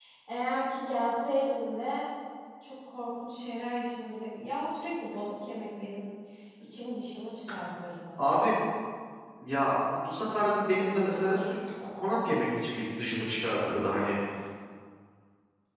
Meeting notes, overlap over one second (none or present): none